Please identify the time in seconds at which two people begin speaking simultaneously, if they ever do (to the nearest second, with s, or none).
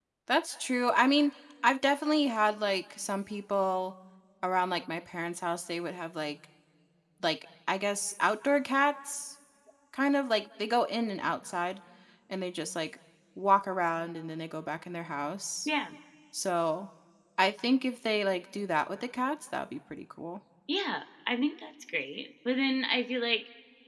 none